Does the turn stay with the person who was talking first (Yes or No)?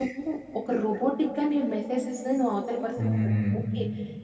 Yes